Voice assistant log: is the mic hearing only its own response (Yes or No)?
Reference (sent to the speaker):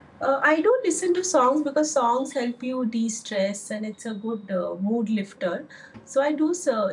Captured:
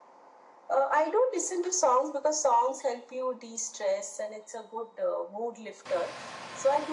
Yes